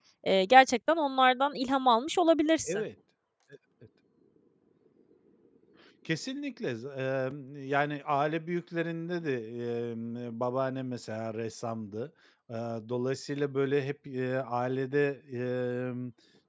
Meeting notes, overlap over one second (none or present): none